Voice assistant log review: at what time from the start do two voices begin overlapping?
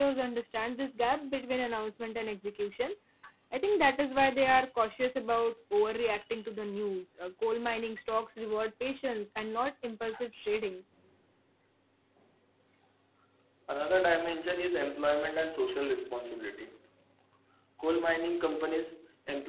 none

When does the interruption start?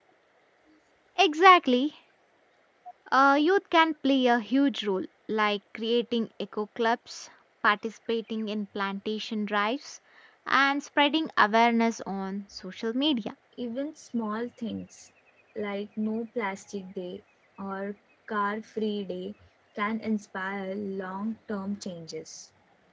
none

